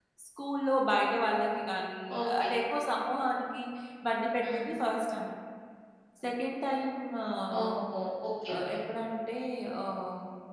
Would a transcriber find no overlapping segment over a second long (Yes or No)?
Yes